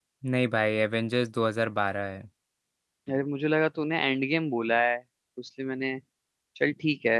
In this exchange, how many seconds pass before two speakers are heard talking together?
none

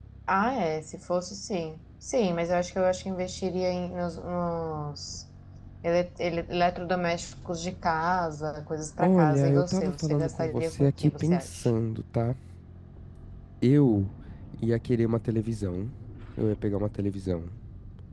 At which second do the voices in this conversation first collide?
9.0 s

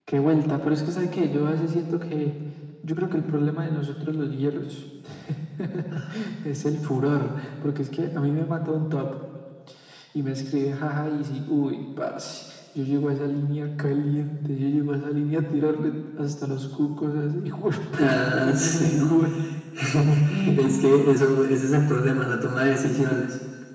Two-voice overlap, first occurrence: 18.0 s

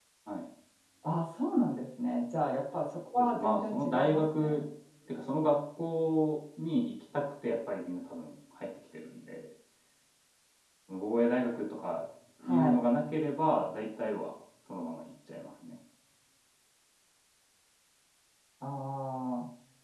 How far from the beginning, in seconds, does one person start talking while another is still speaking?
3.2 s

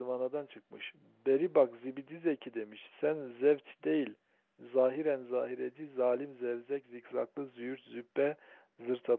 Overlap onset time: none

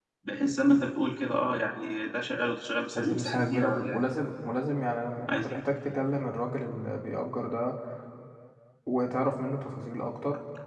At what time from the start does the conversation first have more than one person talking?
3.0 s

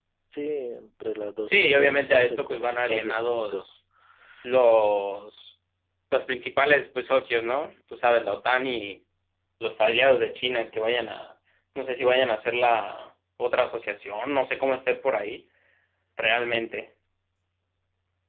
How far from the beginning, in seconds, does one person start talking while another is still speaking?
1.5 s

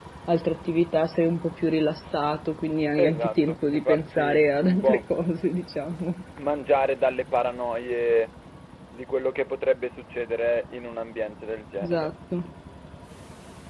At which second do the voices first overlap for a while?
3.0 s

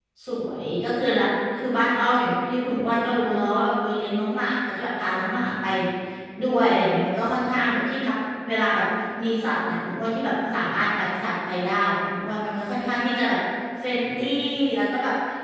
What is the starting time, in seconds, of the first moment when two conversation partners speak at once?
none

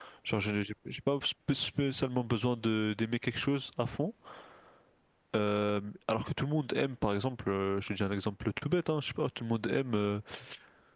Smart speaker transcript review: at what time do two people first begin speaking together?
none

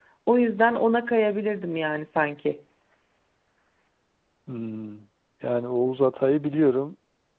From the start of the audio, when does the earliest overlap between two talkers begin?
none

